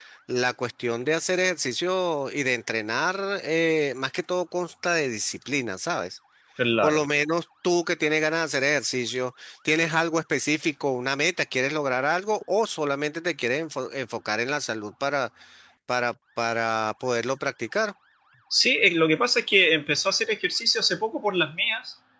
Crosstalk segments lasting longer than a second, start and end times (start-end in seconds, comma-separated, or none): none